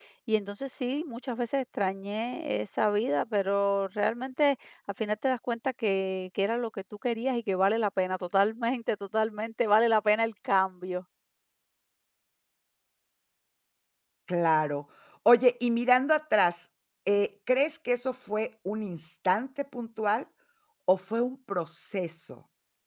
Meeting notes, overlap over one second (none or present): none